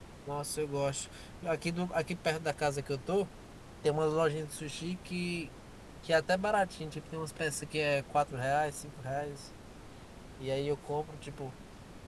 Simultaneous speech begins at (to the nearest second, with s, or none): none